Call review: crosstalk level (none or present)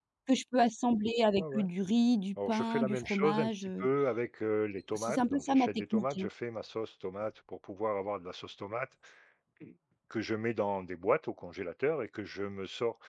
present